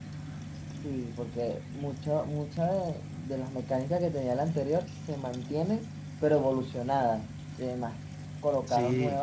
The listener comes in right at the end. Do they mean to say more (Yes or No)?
No